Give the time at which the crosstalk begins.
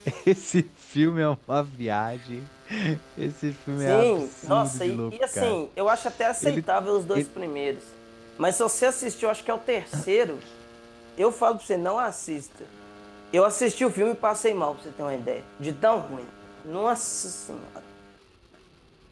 3.8 s

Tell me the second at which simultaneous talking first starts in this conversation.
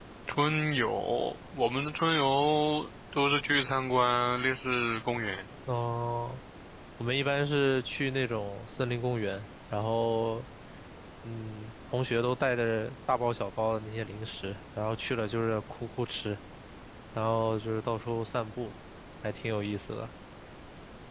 none

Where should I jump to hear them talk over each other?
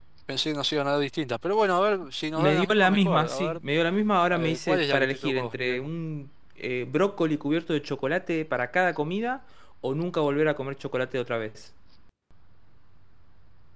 2.4 s

